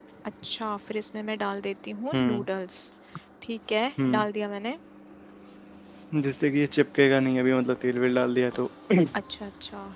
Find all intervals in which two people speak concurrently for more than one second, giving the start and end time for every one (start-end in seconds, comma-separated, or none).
none